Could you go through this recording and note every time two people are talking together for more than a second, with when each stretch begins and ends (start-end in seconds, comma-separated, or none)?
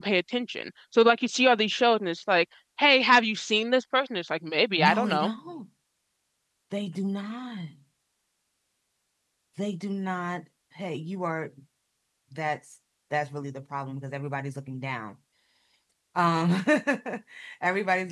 none